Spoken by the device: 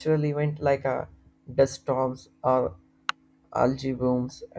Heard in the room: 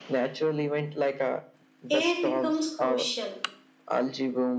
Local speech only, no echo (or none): AI becomes crucial.